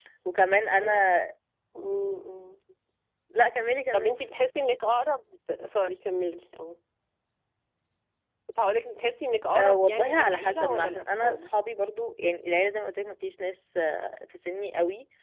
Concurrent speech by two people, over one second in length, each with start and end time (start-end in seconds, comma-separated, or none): 9.6-11.5